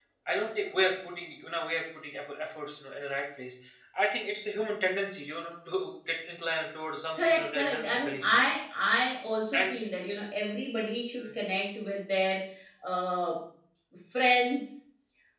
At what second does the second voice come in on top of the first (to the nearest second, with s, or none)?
7 s